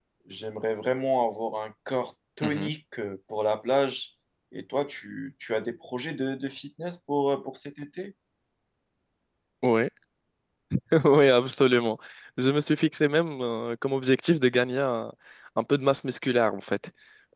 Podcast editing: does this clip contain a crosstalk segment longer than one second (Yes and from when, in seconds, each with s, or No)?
No